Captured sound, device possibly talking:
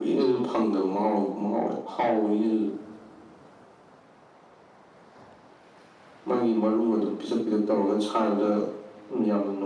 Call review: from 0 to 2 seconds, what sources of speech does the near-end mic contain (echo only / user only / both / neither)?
echo only